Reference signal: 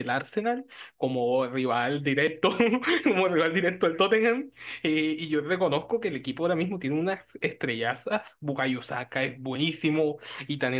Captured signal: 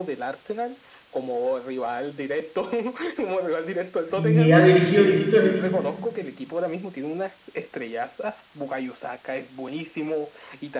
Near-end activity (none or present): present